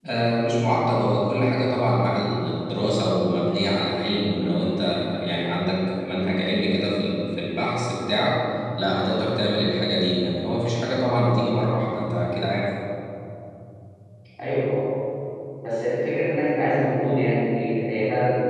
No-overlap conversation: Yes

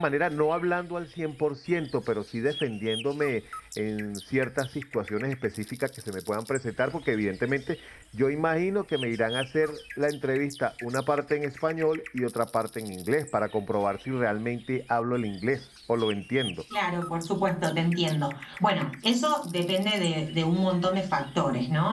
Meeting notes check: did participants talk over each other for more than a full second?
No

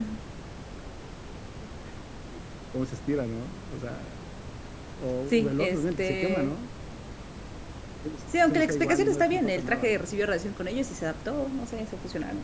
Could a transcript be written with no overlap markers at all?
No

